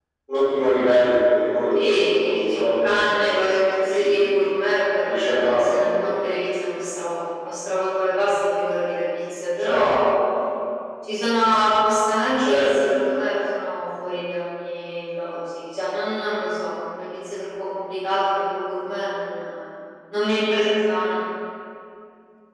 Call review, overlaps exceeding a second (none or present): present